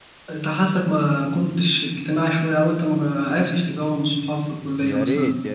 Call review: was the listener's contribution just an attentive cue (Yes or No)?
No